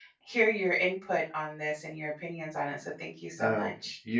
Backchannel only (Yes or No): No